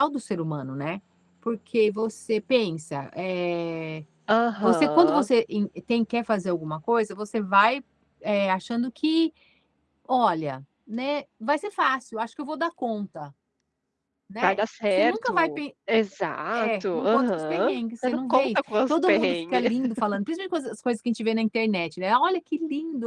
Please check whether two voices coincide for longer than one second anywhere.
Yes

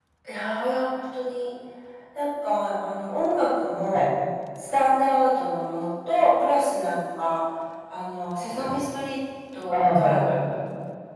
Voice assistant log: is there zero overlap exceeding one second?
Yes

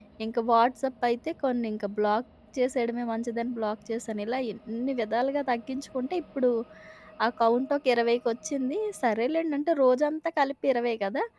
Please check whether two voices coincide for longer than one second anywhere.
No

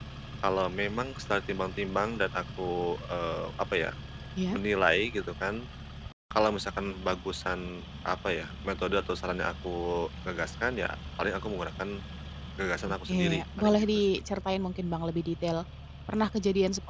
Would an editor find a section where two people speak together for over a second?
Yes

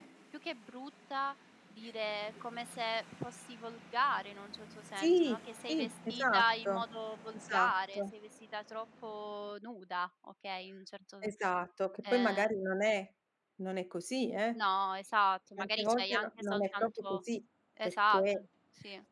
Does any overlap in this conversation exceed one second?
Yes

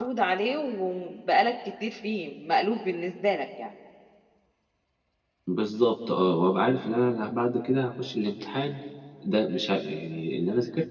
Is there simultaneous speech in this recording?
No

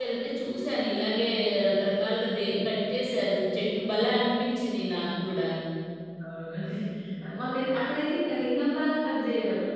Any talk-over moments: No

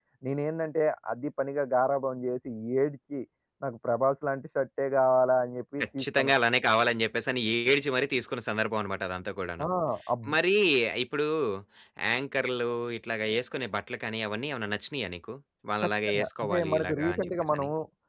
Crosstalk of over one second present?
Yes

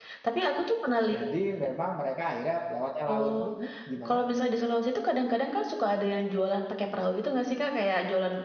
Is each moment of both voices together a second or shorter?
Yes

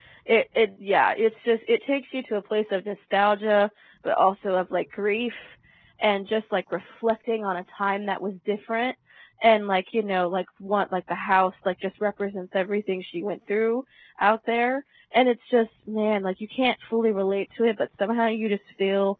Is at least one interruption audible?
No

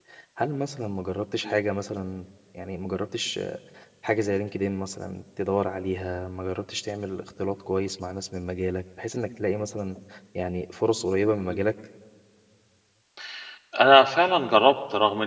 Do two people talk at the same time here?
No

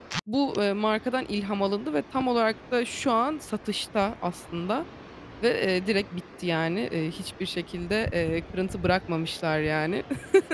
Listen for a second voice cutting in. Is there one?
No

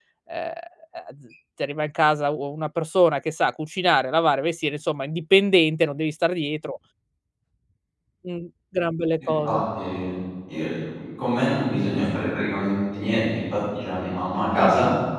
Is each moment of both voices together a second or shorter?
Yes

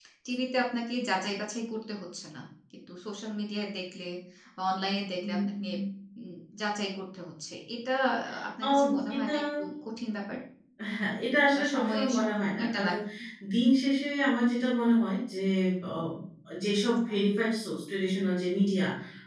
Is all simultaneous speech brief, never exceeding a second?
No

